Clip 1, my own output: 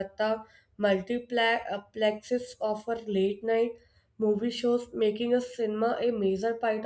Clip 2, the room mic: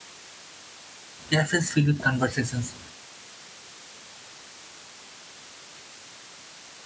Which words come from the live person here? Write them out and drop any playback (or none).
cafes filled with conversations,